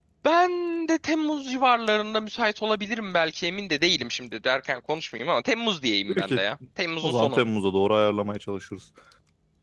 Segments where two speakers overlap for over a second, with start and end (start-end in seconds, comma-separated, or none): none